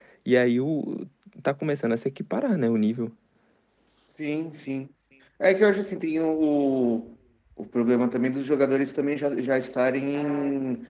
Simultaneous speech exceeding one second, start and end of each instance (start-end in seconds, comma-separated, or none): none